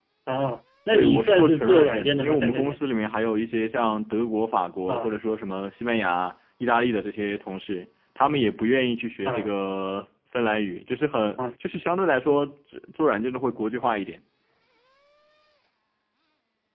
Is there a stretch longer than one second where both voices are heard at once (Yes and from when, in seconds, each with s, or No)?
Yes, from 0.9 s